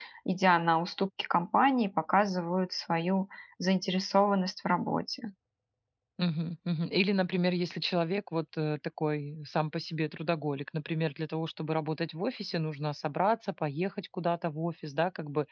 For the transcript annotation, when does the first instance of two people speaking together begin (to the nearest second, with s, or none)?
none